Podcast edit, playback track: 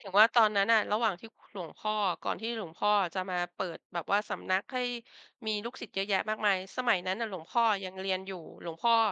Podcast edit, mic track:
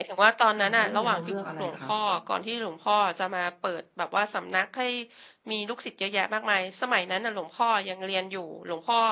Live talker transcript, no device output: ค่ะ แล้วอย่างเงี้ยเราเลือกอะไรคะ?

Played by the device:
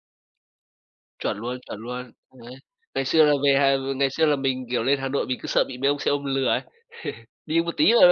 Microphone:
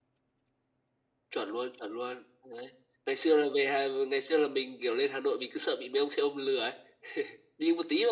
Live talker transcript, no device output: none

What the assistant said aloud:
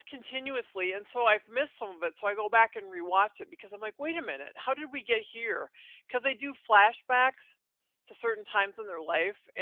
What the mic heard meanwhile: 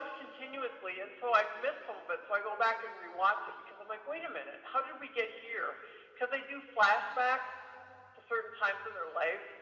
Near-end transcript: none

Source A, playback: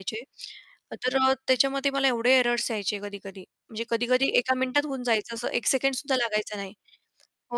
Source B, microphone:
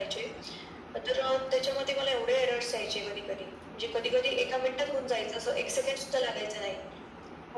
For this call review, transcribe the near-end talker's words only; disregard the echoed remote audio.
none

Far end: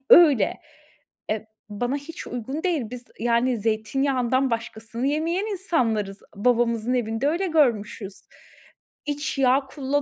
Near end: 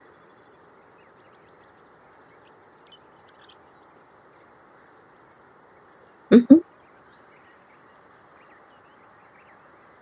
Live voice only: Hı hı.

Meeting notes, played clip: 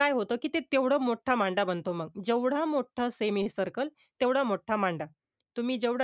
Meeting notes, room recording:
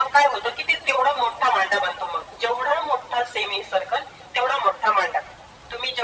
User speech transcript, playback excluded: none

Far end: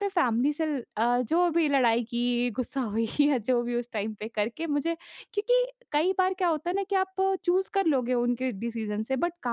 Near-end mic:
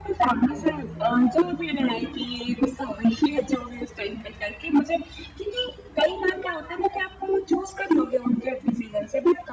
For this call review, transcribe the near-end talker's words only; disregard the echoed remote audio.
none

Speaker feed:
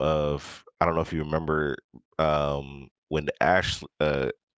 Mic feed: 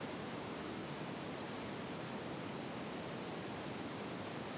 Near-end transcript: none

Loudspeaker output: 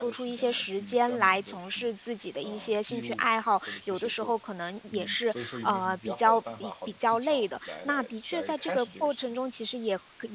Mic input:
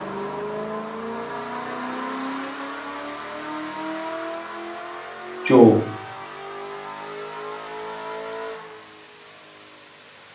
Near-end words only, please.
就，

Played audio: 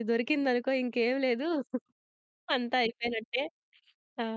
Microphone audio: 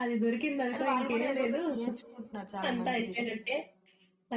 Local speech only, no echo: అది వాళ్ళు కూడా ఏదో ఒకటి నేర్చుకుంటున్నారు చాలా మంచి విషయం.

